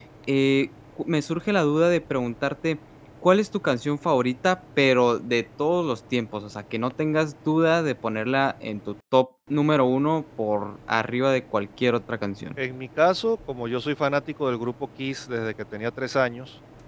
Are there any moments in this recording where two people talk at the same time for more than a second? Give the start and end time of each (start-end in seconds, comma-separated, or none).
none